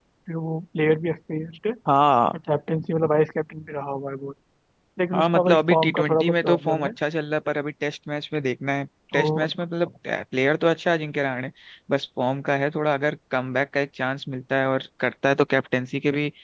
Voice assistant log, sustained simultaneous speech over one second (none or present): present